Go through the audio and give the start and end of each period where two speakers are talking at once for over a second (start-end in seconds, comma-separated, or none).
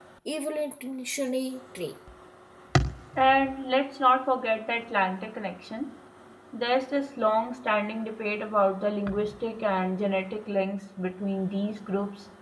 none